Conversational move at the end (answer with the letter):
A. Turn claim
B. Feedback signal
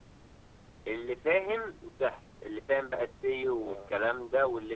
B